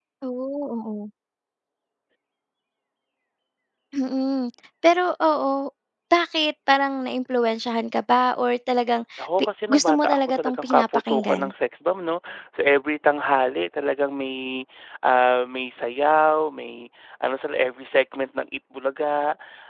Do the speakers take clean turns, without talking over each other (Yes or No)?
No